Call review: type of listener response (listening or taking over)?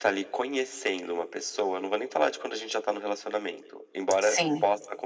listening